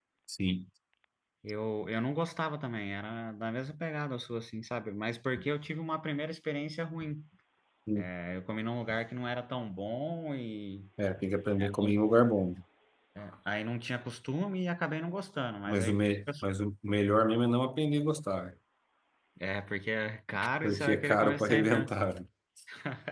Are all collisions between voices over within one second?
No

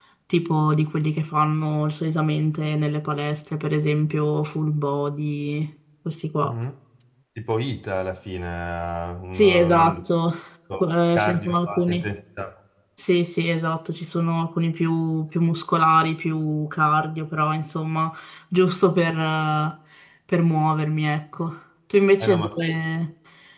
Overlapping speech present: Yes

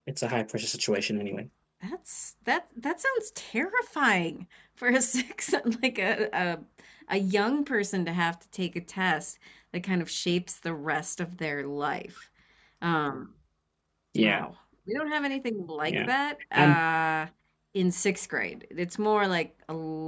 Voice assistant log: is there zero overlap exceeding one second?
Yes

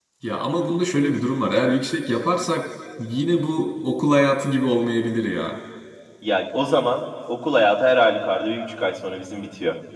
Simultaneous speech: No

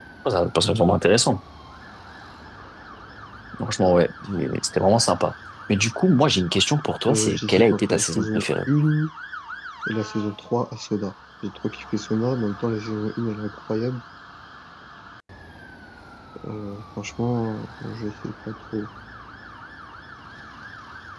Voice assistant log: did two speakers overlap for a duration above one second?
Yes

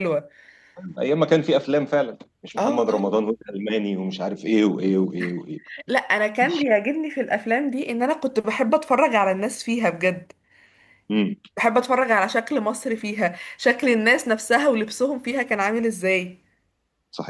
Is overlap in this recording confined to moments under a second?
Yes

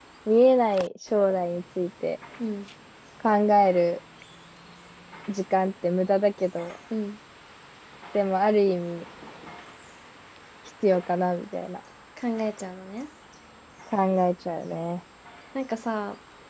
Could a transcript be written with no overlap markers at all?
Yes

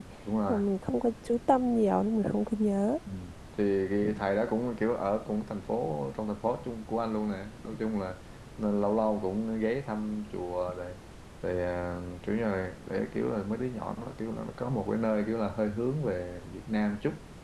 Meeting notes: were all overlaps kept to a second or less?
Yes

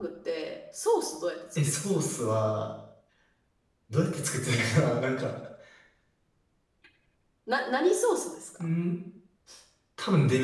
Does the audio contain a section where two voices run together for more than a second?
No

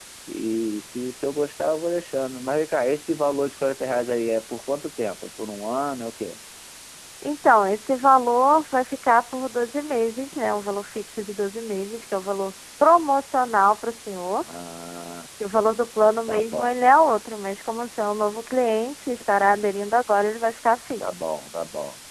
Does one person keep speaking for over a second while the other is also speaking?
No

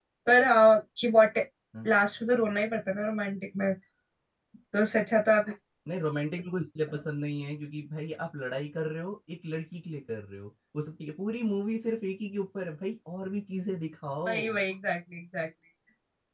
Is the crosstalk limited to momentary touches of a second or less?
Yes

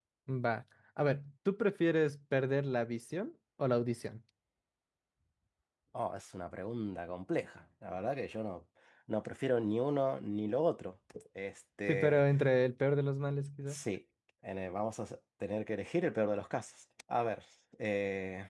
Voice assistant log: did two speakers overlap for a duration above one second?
No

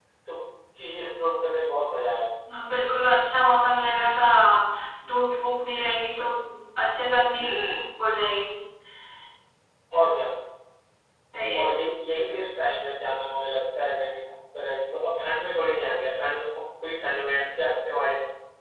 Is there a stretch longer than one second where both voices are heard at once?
No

